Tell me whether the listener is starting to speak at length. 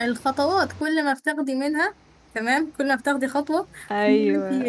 No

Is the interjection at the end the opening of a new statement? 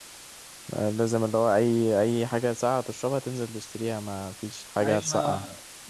Yes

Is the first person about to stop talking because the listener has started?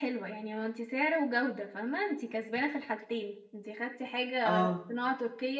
No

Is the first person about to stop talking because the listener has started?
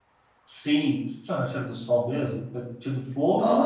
Yes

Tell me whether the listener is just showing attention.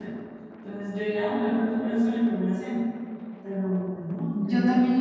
No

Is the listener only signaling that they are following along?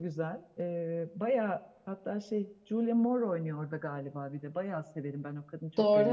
No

